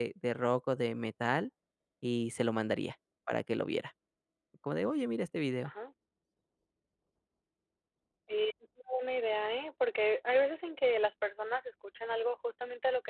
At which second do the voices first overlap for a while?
none

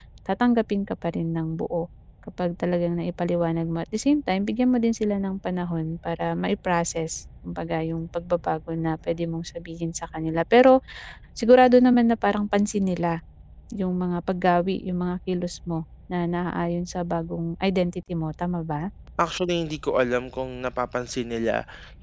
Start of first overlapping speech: none

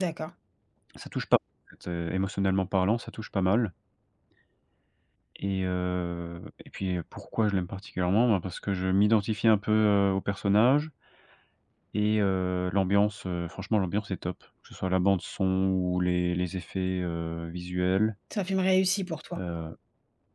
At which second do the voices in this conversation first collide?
none

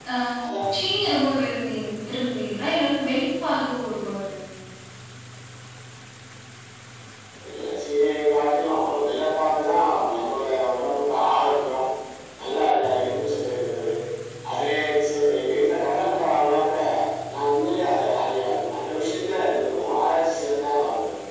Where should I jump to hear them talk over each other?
none

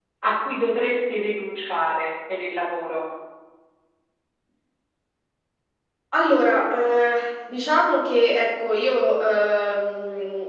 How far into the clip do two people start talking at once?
none

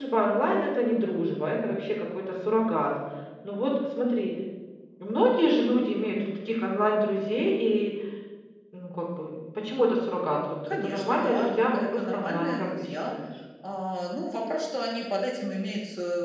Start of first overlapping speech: 11 s

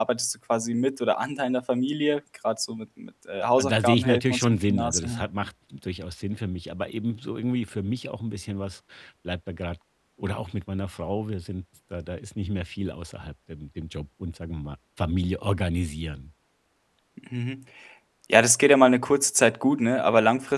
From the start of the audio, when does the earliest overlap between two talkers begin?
4 s

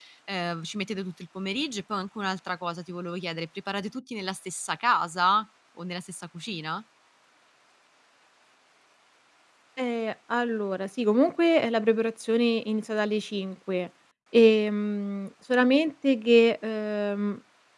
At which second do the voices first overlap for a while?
none

